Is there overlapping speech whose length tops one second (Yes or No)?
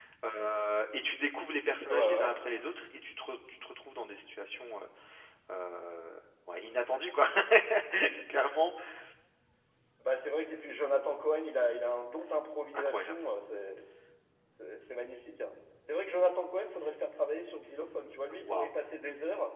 No